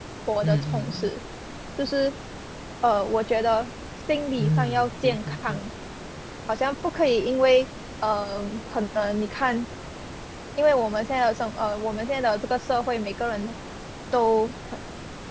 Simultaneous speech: Yes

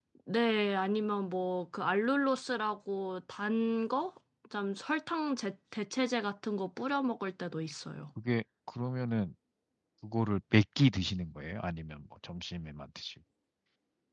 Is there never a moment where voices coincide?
Yes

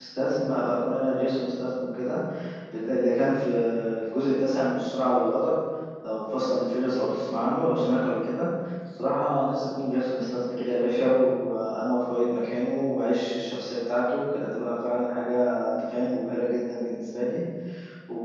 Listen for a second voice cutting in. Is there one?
No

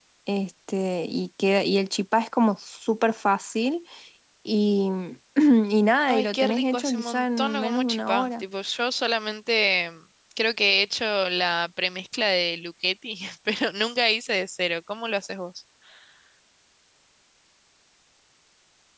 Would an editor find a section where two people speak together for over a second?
Yes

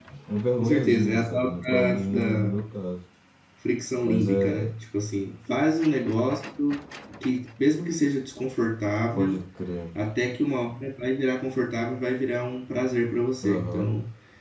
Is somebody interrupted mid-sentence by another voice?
Yes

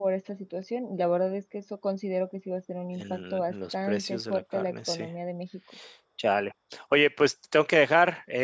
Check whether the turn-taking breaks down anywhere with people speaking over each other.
Yes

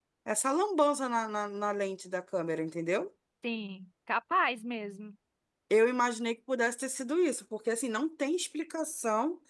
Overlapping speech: No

